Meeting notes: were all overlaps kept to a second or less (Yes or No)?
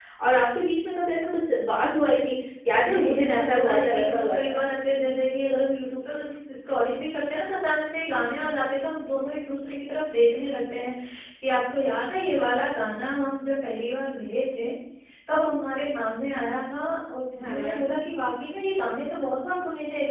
No